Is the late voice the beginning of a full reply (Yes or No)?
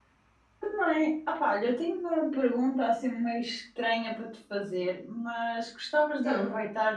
No